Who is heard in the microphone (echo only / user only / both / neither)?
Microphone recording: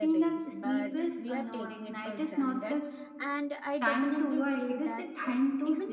both